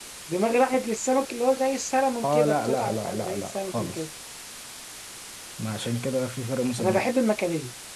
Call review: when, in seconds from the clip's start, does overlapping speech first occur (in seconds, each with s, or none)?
2.2 s